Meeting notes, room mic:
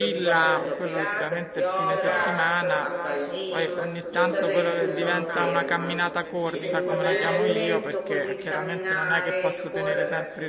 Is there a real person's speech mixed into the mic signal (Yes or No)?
Yes